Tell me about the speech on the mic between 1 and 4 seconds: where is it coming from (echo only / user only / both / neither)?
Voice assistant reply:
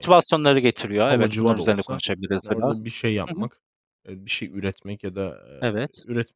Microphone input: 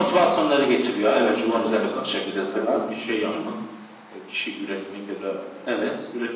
echo only